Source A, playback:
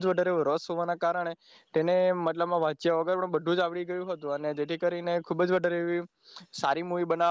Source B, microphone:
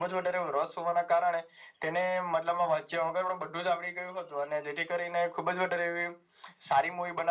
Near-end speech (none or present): none